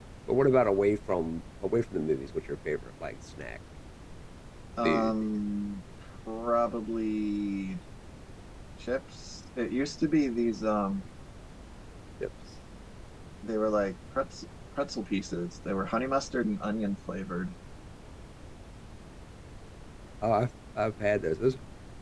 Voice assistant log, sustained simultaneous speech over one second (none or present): none